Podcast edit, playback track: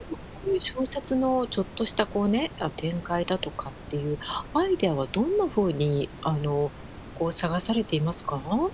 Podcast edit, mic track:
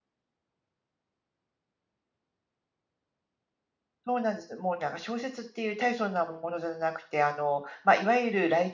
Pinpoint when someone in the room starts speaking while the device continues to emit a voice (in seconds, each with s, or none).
4.0 s